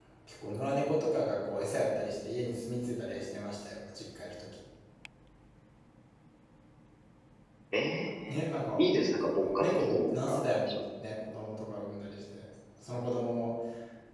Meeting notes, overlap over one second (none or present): present